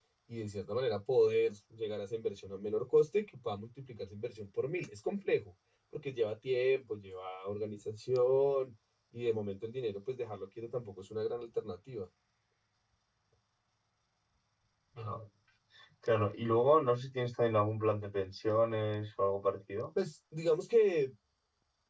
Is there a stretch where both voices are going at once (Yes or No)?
No